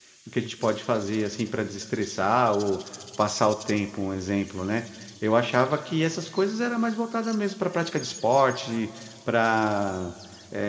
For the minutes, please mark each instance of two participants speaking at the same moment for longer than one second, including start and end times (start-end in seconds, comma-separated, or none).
none